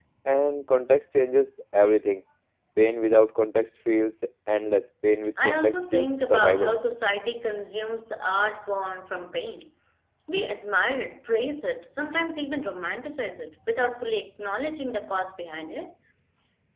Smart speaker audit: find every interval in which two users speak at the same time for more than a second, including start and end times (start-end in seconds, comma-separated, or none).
5.4-6.8